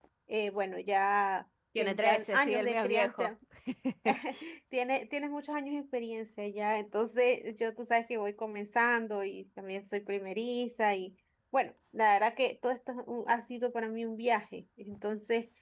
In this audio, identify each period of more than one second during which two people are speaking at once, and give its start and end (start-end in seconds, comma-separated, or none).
1.8-3.3